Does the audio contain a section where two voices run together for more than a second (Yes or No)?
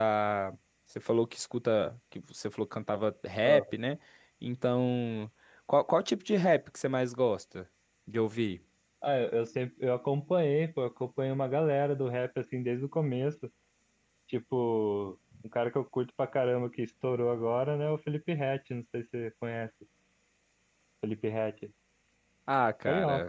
No